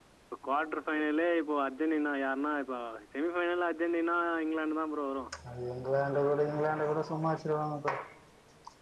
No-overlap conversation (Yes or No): Yes